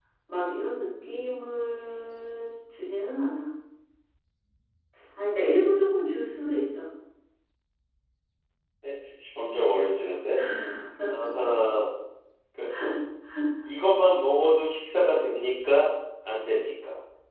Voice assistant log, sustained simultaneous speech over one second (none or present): none